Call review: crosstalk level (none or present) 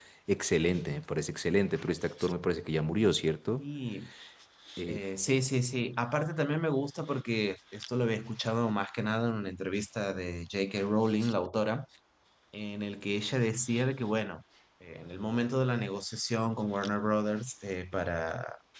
none